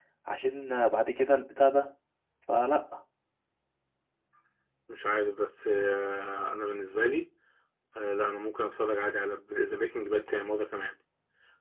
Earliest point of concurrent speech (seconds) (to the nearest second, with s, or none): none